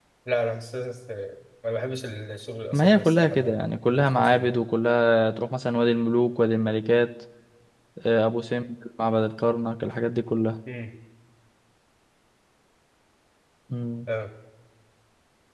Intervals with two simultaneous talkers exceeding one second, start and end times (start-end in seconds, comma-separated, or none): 2.7-4.6